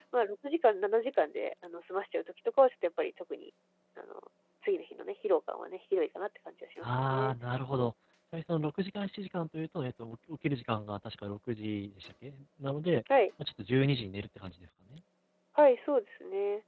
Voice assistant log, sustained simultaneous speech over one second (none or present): none